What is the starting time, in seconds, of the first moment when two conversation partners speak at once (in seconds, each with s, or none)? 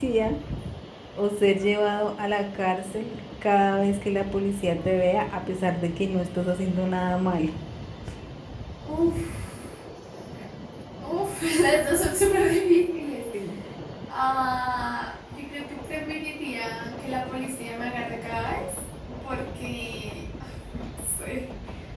none